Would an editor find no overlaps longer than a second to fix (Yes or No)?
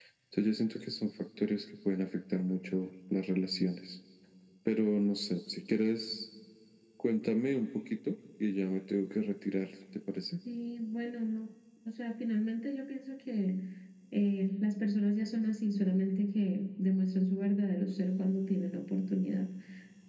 Yes